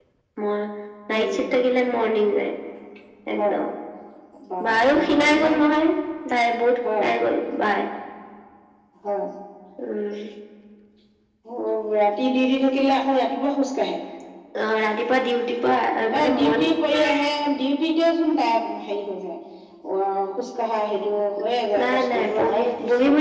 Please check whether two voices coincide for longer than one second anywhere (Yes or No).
Yes